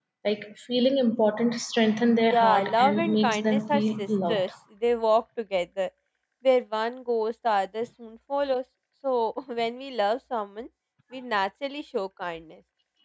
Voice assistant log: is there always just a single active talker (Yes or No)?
No